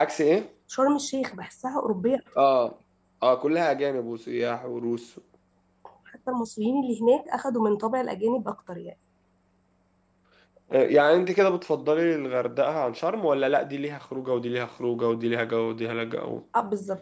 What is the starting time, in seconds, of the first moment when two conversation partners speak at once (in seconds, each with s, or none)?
none